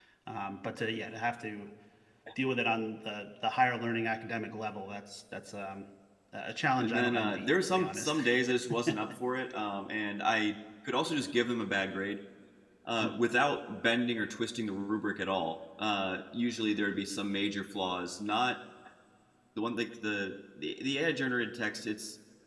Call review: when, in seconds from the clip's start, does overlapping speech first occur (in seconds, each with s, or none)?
6.8 s